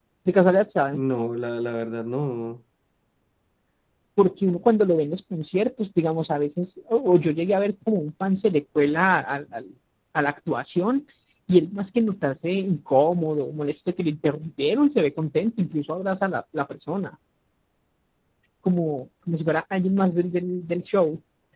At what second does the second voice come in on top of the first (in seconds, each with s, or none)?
none